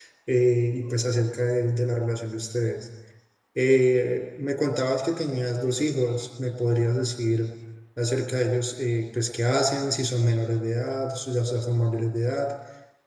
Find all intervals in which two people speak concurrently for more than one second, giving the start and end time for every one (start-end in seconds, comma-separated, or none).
none